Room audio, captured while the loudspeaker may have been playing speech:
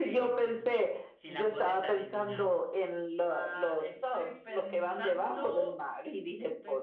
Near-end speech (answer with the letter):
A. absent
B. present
A